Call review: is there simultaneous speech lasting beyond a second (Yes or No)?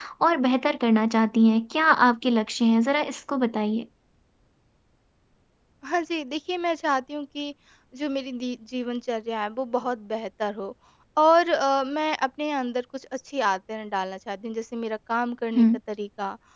No